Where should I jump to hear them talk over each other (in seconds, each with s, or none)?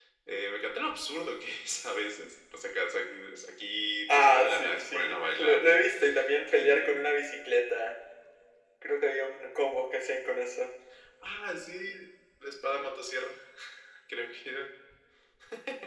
4.1 s